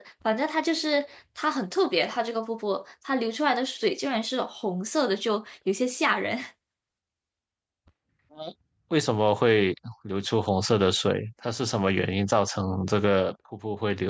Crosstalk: none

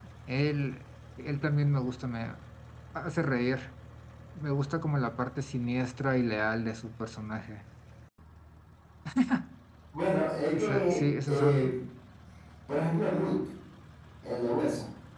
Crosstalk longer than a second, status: present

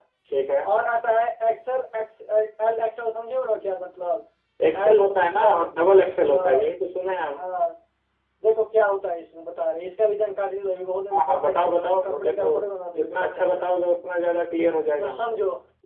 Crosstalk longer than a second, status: present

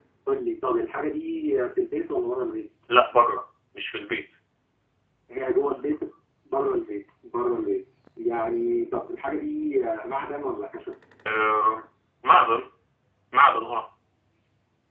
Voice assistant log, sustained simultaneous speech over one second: none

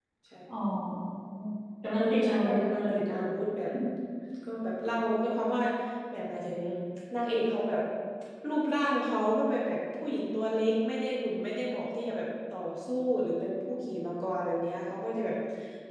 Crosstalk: present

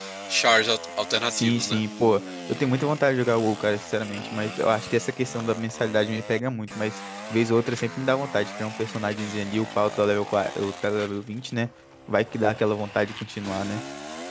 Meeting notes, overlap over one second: none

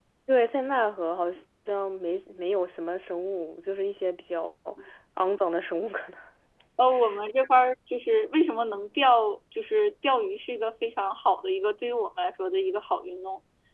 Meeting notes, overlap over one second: none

